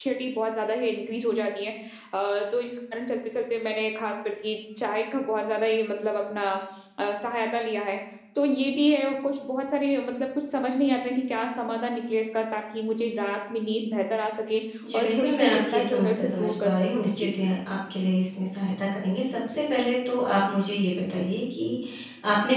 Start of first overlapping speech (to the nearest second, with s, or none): 15 s